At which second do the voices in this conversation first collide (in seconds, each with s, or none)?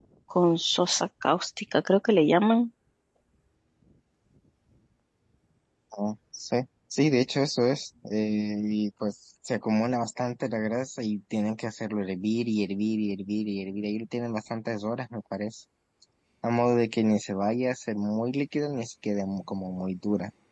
none